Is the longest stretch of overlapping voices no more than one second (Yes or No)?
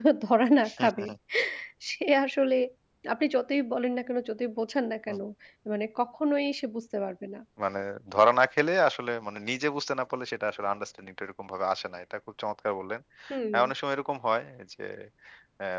Yes